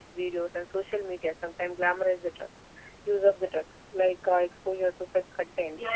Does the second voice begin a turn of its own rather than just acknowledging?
Yes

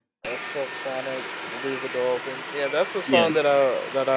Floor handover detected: No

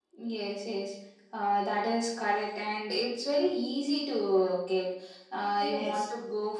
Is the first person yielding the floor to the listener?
No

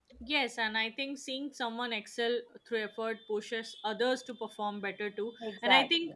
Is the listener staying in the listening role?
Yes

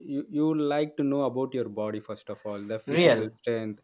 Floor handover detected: No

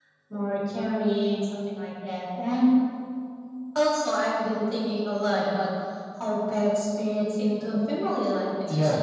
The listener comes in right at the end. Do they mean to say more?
No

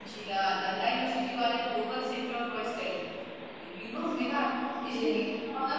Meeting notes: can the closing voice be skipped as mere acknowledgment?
Yes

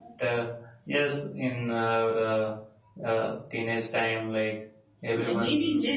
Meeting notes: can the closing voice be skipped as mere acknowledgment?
No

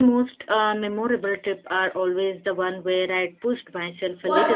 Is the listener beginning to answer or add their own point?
Yes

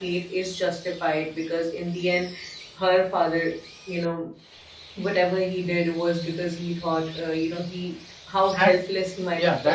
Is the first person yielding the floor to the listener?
Yes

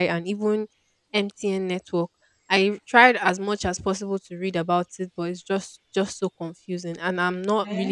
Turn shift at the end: Yes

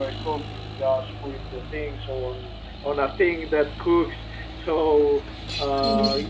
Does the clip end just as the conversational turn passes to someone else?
No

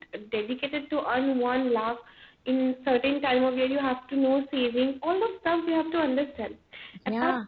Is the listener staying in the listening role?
Yes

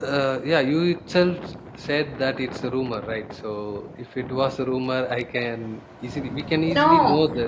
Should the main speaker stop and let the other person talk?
Yes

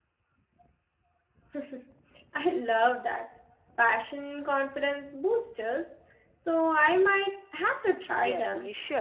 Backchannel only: No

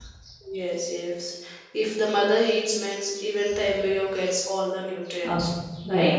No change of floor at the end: No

